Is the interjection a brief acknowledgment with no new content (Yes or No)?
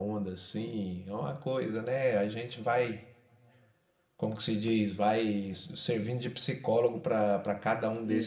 Yes